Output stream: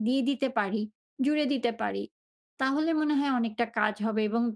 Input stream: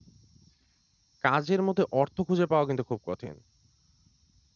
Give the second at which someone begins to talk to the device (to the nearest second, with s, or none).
1 s